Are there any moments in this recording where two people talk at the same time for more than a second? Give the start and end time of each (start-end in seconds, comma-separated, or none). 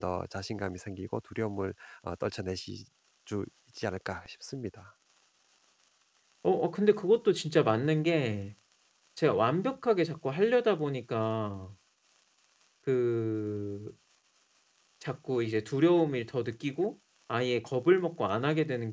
none